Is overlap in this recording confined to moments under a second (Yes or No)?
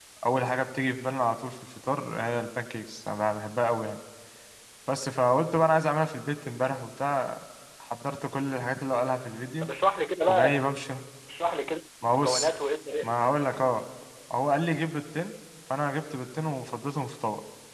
Yes